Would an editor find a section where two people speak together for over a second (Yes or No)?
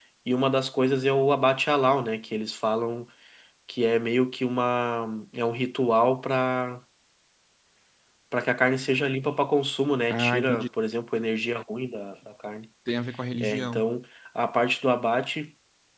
No